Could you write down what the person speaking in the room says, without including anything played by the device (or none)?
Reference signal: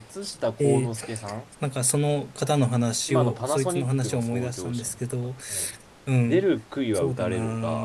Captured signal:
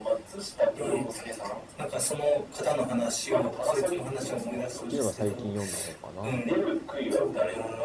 ていうのが最近読んだ本かな。